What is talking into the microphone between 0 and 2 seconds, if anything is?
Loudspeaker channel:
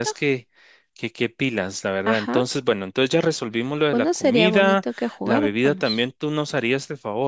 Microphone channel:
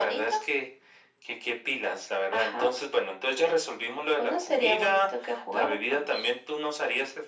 echo only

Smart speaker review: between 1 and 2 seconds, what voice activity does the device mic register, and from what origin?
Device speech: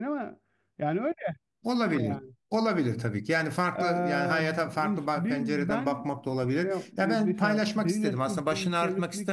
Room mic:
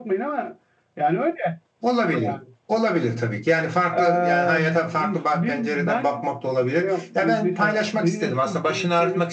echo only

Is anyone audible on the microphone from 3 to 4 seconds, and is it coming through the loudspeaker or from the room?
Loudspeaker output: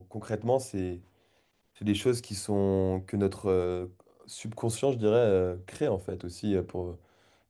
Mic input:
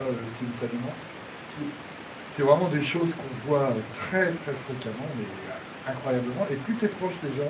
user only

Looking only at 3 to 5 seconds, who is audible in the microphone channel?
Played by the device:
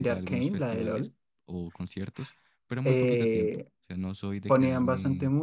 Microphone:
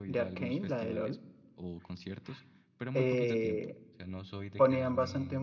echo only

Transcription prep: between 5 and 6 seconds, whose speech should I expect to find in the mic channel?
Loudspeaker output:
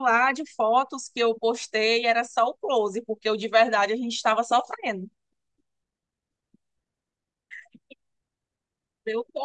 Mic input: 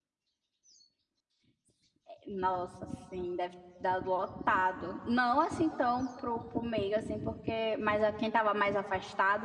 user only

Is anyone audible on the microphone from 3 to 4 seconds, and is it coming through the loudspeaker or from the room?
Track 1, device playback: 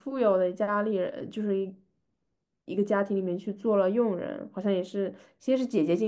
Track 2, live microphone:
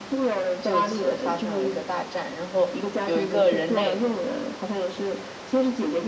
both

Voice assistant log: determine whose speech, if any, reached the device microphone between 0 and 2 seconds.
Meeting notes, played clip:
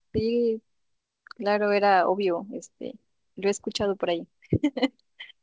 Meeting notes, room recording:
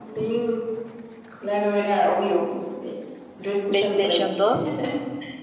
echo only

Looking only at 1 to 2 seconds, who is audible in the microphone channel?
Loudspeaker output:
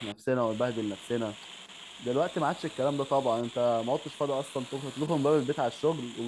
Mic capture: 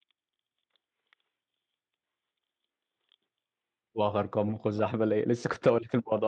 neither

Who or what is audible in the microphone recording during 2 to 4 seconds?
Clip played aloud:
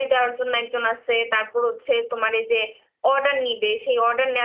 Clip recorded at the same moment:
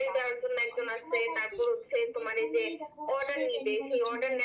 both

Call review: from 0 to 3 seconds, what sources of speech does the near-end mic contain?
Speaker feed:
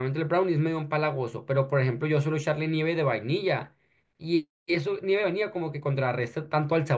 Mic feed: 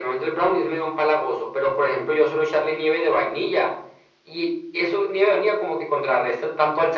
echo only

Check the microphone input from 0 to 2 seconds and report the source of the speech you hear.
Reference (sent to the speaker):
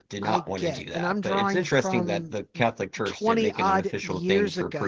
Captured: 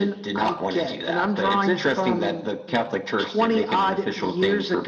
echo only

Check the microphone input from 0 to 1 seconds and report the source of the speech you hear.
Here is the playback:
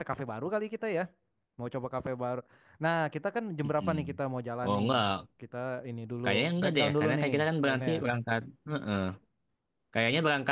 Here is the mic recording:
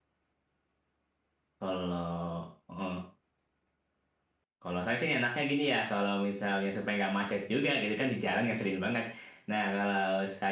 neither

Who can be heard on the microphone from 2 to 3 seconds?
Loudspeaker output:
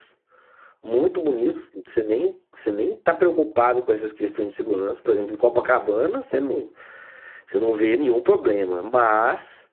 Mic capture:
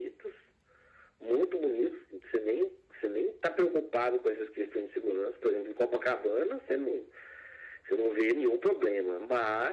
echo only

